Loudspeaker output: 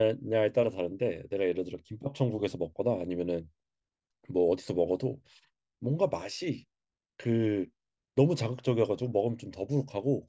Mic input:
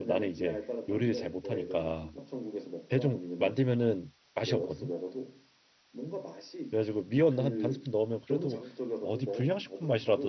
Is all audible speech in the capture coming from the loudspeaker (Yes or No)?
No